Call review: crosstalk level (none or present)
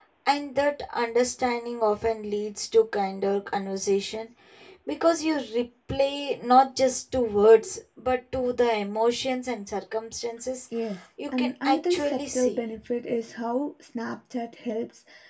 present